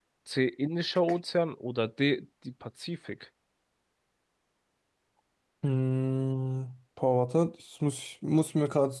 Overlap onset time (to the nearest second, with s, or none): none